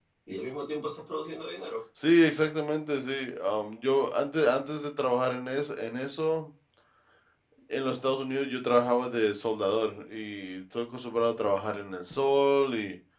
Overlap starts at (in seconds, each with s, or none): none